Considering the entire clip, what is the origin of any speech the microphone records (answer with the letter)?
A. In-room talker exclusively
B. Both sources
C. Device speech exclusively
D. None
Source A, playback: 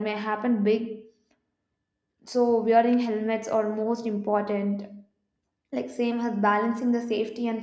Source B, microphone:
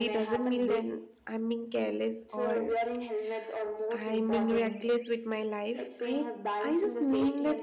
B